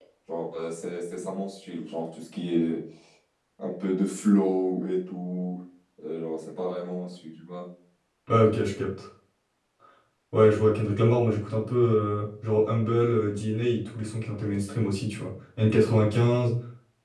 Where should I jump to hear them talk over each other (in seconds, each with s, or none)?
none